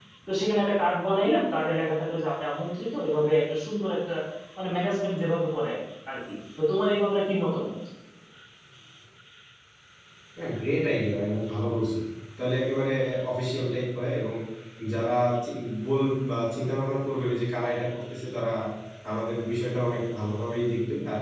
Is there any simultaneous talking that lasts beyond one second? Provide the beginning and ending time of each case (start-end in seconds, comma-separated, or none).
none